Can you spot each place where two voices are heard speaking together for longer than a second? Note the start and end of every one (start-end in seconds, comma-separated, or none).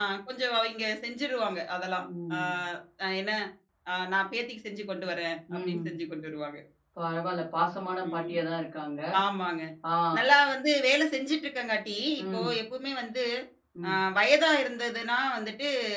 none